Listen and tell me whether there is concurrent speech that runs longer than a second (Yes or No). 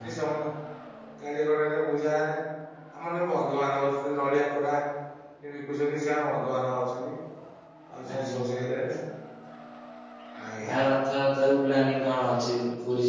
No